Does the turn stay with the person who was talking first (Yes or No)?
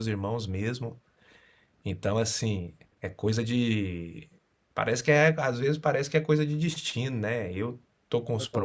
Yes